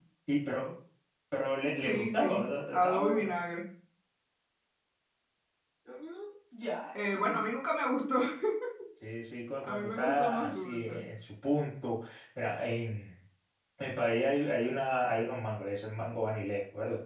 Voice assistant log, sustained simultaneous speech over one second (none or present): present